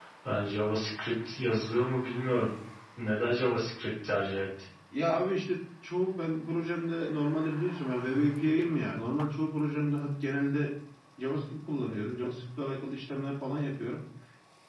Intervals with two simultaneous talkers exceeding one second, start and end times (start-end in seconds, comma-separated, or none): none